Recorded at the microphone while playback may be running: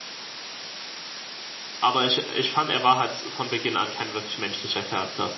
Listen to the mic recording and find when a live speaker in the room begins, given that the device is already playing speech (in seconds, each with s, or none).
1.8 s